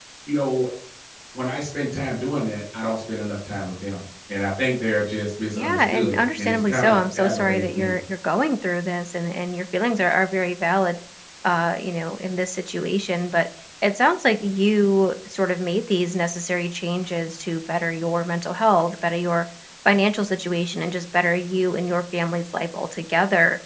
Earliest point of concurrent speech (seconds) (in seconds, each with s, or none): 5.5 s